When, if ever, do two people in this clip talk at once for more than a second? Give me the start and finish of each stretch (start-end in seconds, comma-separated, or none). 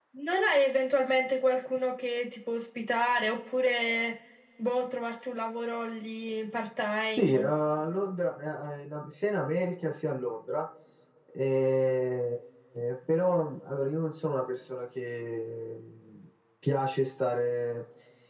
none